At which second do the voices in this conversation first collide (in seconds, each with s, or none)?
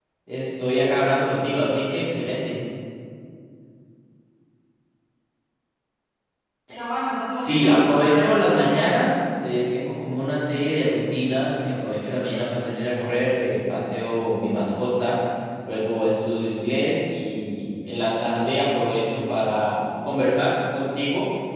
7.3 s